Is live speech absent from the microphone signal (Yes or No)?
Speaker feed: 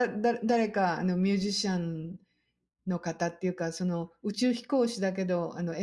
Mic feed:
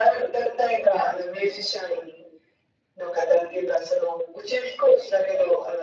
Yes